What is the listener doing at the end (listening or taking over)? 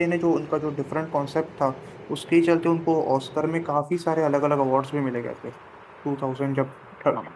listening